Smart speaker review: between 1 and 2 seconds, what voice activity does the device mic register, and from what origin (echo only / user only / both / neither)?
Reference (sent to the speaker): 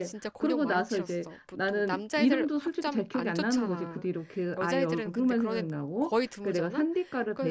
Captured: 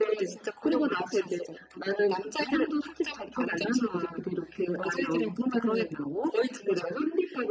echo only